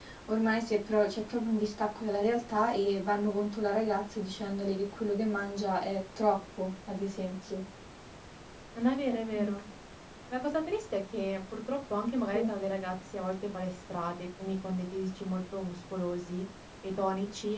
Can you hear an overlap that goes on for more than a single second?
No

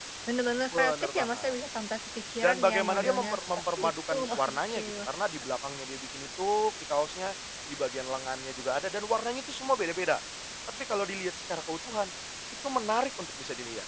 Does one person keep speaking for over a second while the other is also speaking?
Yes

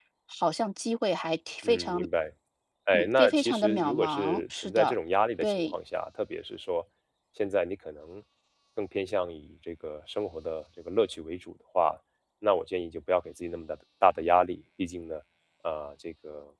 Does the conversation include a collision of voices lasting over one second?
Yes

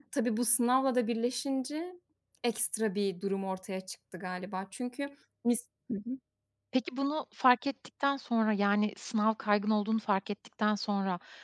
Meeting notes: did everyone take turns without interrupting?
Yes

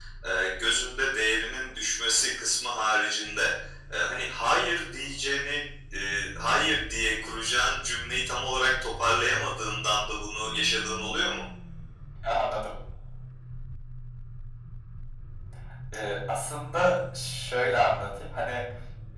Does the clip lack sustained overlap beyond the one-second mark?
Yes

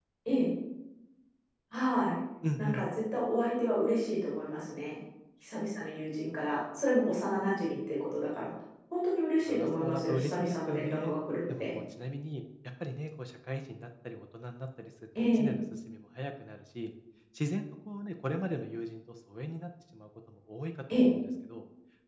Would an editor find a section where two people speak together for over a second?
Yes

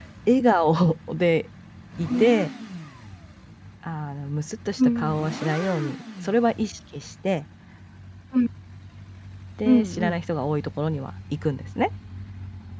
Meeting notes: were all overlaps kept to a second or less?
Yes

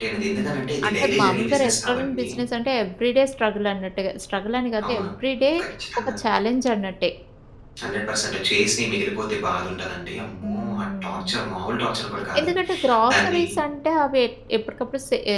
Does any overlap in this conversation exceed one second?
Yes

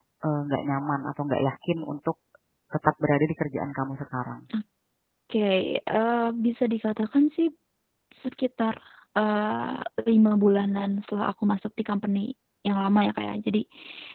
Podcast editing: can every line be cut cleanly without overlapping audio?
Yes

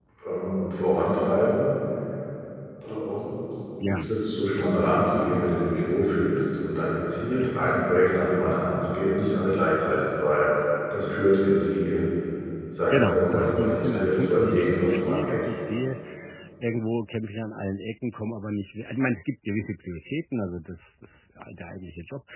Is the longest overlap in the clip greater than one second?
Yes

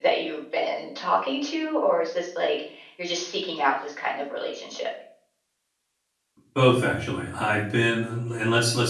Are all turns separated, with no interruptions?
Yes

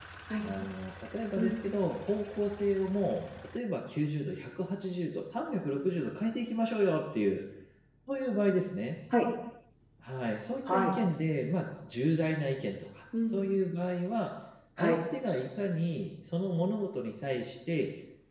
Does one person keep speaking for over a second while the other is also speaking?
No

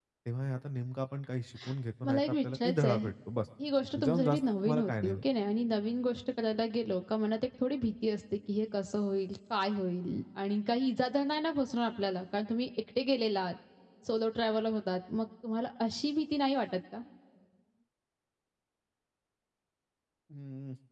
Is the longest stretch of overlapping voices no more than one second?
No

